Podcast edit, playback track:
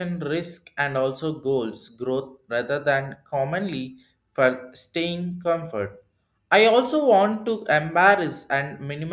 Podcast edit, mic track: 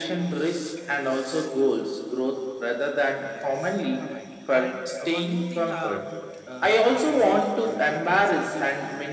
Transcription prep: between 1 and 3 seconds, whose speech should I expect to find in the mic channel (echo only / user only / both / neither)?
echo only